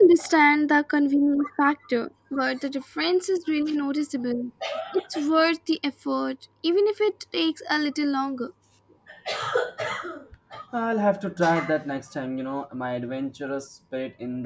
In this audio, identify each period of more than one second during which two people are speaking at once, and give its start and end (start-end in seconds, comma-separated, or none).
none